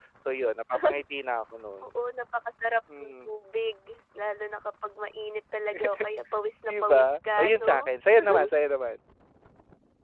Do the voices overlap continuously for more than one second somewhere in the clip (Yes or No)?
Yes